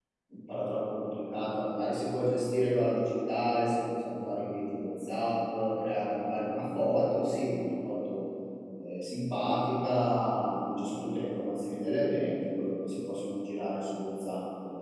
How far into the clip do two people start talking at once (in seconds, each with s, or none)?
none